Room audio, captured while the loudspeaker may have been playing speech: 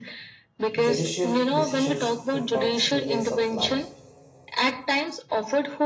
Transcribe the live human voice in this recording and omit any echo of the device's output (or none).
Judicial decisions impacts millions of lives.